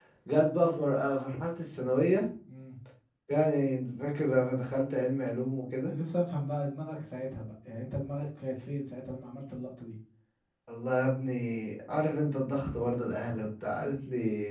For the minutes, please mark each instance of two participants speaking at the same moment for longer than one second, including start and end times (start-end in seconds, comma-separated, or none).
none